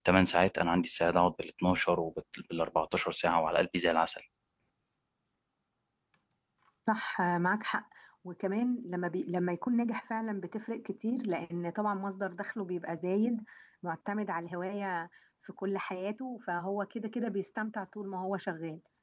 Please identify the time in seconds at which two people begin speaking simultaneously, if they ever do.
none

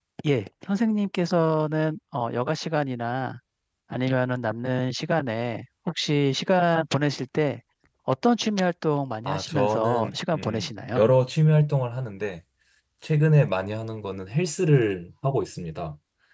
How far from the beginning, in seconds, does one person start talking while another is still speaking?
9 s

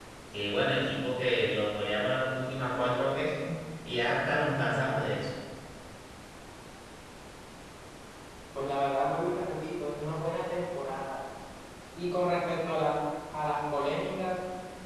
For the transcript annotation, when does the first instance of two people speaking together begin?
none

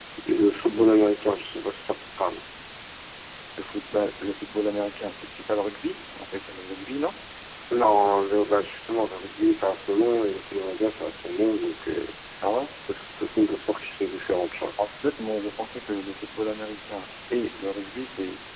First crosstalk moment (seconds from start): none

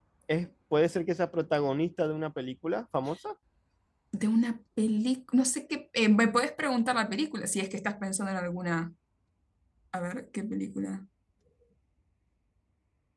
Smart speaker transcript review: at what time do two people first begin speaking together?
none

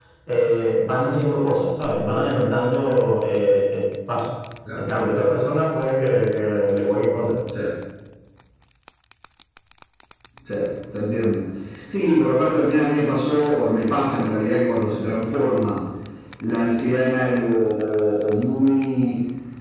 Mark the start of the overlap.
none

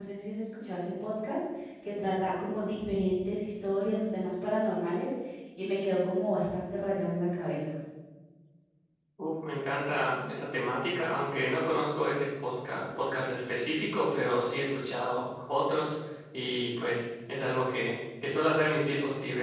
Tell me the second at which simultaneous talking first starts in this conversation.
none

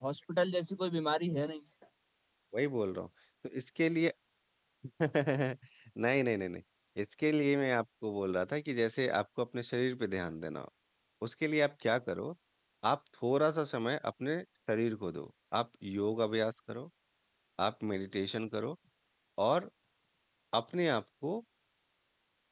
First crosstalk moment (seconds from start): none

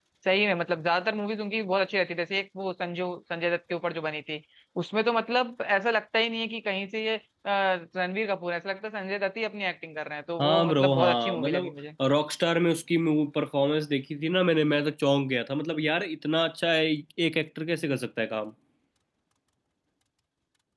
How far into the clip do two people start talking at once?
10 s

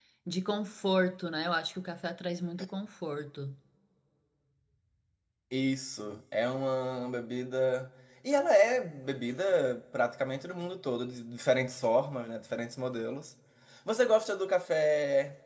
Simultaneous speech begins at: none

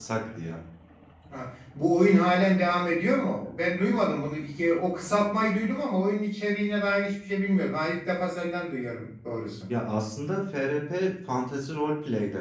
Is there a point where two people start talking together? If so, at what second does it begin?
none

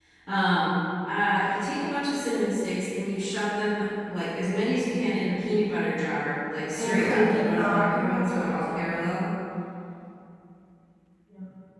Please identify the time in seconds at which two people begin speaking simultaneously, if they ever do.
7 s

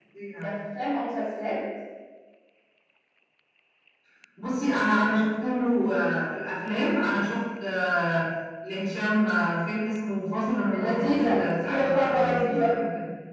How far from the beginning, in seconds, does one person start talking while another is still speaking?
11 s

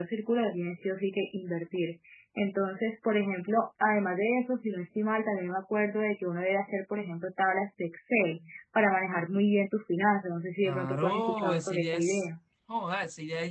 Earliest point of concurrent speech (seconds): 11 s

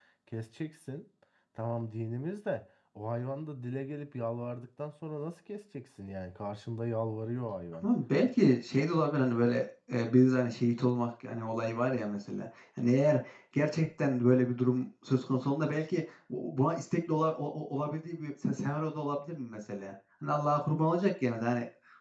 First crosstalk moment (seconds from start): none

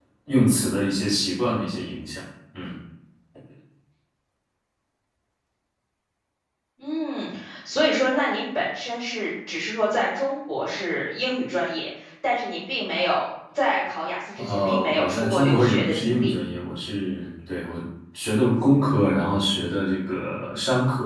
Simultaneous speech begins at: 14 s

